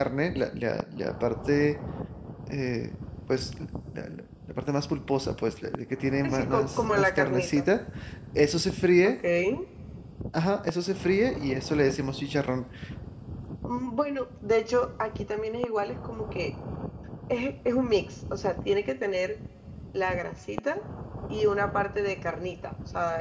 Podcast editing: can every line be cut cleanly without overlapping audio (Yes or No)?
No